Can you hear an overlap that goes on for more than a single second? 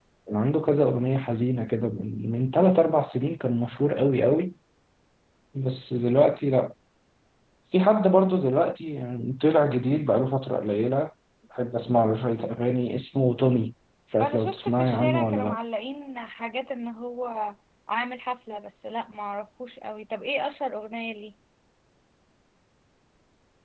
Yes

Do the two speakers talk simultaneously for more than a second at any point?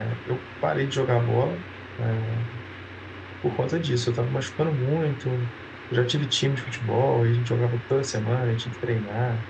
No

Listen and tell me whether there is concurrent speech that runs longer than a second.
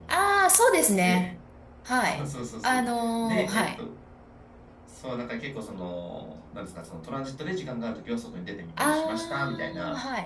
Yes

